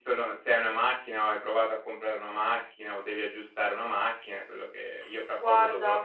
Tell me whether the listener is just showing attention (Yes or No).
Yes